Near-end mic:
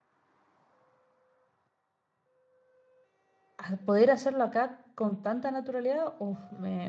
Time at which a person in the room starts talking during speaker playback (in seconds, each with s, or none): 3.6 s